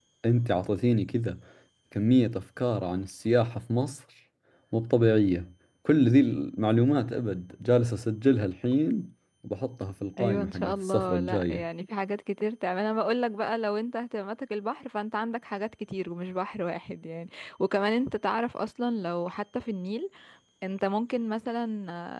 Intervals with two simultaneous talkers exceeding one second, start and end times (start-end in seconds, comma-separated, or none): 10.2-11.6